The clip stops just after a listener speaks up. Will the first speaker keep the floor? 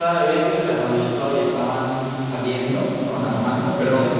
Yes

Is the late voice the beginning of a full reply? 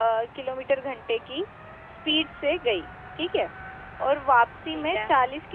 No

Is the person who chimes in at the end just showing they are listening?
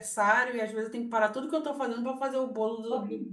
No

